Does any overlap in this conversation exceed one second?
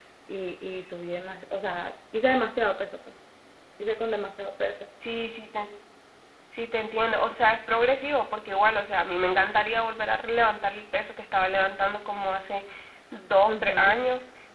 No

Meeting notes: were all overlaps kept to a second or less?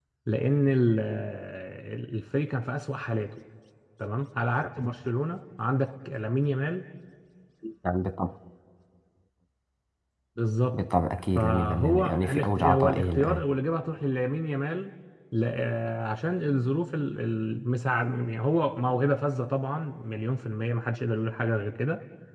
No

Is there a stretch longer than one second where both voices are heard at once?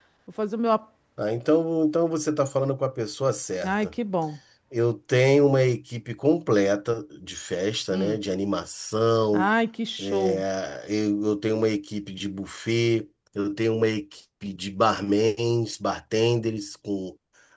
No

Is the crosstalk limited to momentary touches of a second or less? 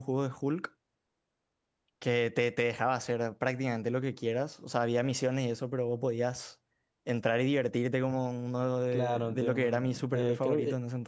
No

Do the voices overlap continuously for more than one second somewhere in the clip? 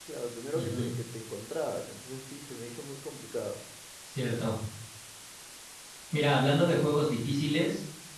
No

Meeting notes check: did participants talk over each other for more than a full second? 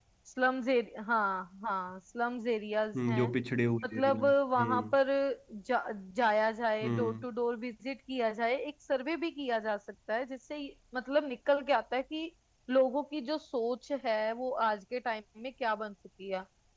No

